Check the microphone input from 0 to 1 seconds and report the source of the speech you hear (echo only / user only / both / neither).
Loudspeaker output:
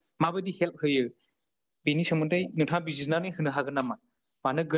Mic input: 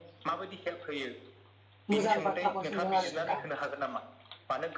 echo only